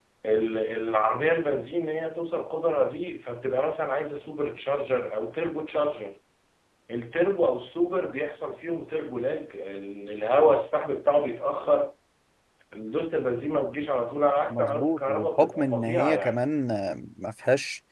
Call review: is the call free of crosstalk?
No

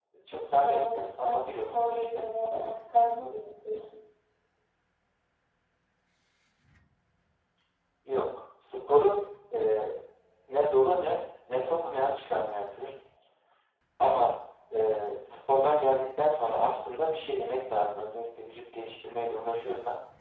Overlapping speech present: Yes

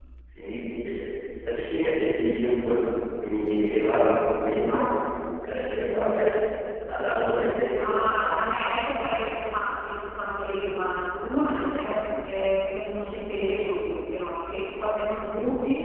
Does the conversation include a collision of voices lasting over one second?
No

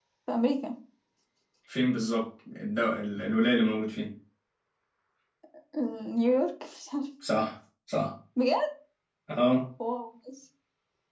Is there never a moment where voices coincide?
Yes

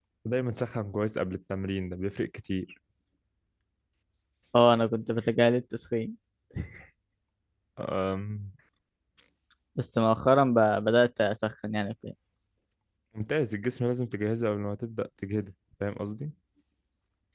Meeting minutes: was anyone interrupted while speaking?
No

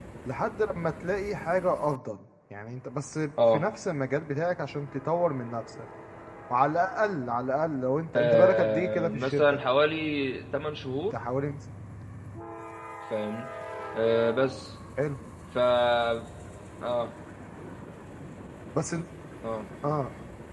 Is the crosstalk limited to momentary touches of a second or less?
No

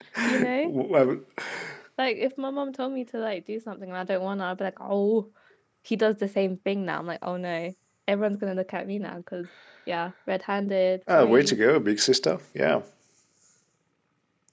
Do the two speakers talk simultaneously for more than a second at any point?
No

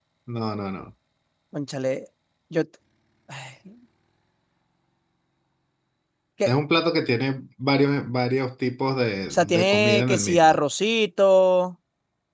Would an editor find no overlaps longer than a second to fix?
No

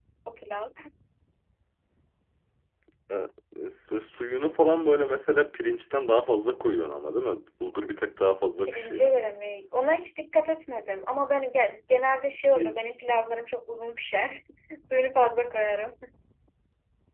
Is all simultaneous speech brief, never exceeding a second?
Yes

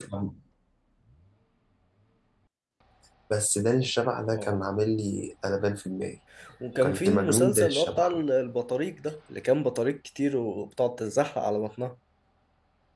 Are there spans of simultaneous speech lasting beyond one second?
Yes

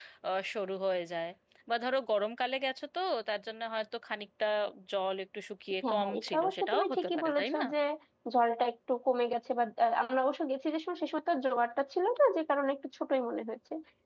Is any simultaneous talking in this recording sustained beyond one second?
Yes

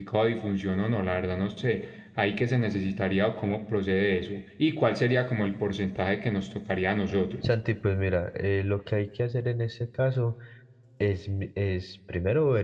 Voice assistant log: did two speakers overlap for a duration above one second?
No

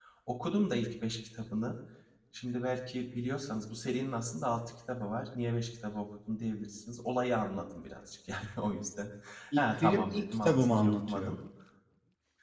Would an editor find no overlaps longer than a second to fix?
No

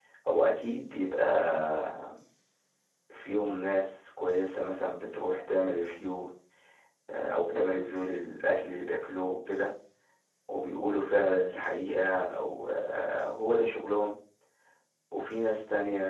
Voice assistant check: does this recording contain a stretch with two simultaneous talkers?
No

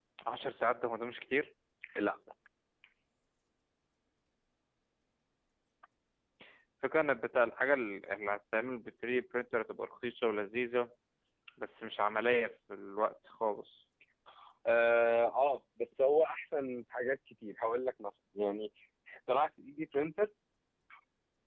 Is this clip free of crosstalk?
Yes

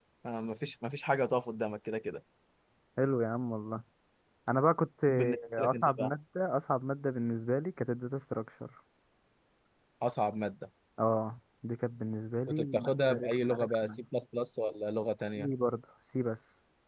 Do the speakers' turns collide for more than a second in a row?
Yes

